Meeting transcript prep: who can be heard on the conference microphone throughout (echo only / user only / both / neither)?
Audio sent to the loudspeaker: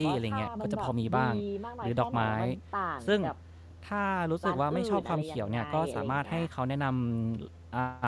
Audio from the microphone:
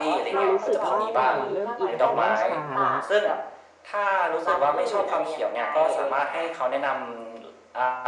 both